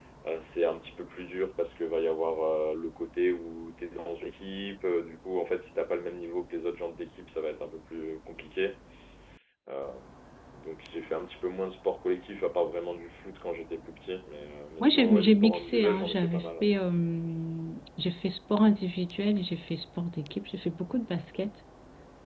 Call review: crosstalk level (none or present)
present